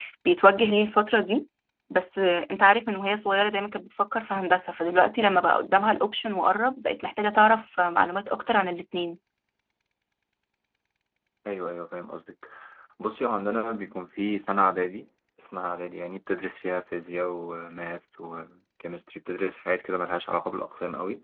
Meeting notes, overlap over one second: none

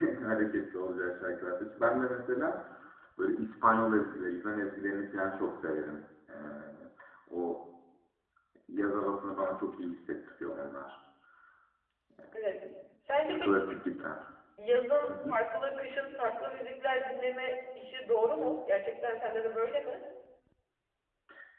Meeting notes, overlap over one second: none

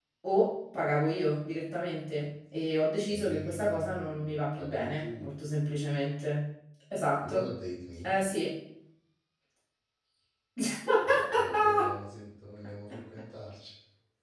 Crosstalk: present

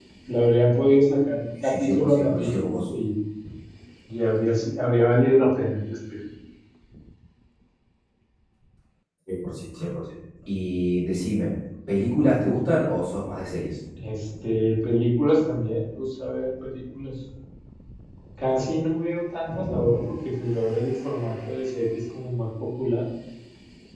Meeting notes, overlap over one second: present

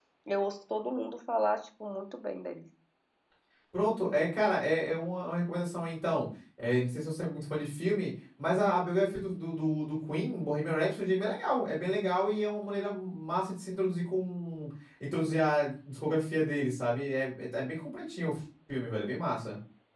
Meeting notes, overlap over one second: none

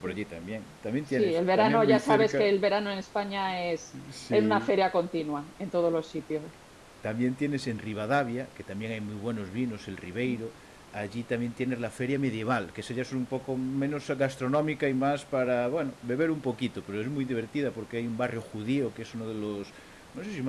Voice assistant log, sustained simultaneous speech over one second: present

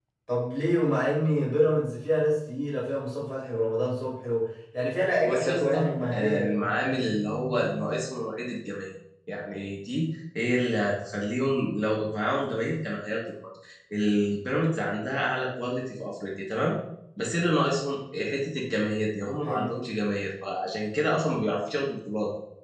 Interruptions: present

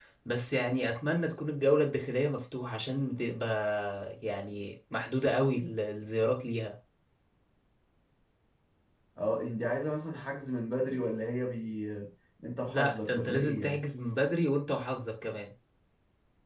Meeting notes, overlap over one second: present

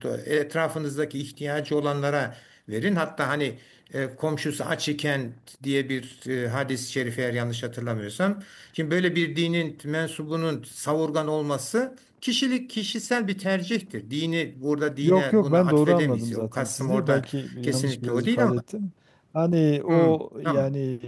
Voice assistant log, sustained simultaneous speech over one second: present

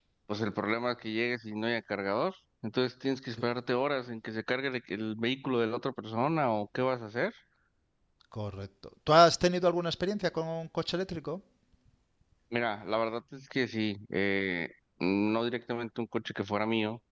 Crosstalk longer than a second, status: none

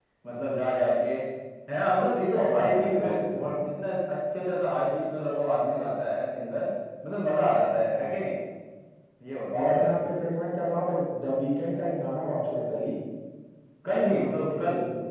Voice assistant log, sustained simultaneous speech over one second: present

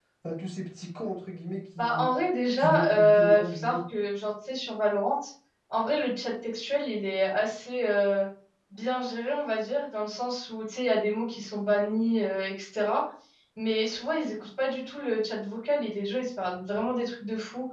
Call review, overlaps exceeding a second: present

